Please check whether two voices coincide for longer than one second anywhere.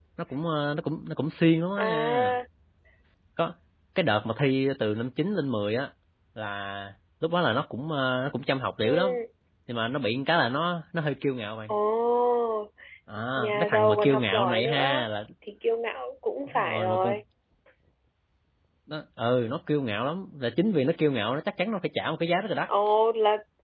Yes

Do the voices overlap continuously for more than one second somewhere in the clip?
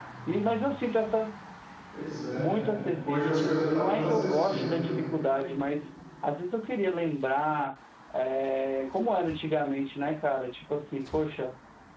Yes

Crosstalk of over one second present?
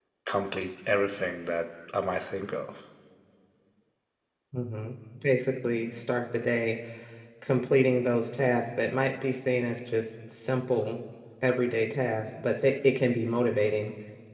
No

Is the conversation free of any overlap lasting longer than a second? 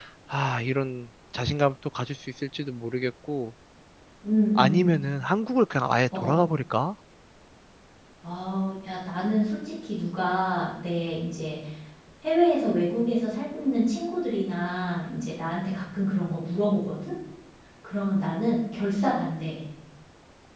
Yes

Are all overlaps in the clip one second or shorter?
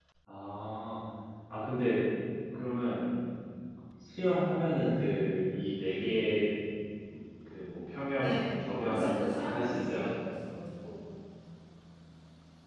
No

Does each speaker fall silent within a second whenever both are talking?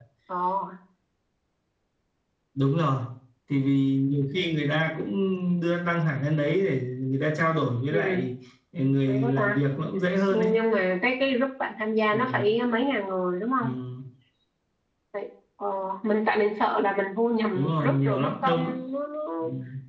No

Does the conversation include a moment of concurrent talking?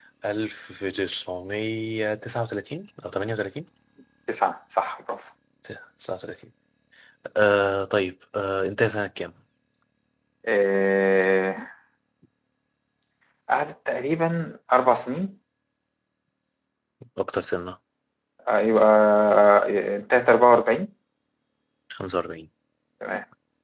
No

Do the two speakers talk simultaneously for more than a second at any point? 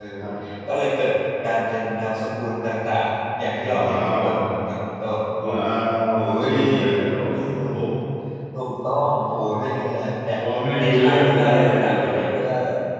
Yes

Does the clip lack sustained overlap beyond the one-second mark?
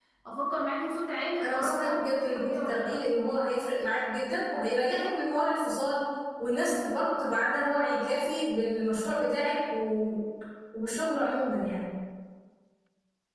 No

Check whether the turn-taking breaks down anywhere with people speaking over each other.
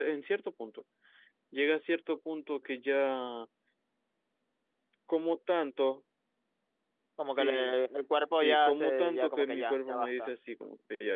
Yes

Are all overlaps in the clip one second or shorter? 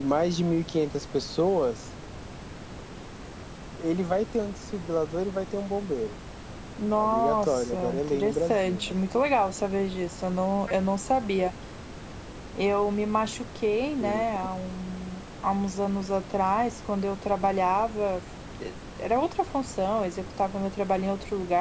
No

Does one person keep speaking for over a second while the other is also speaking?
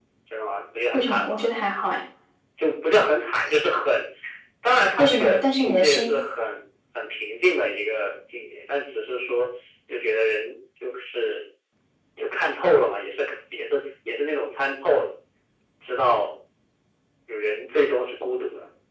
Yes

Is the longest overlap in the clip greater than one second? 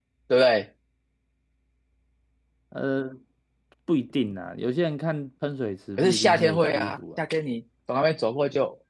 Yes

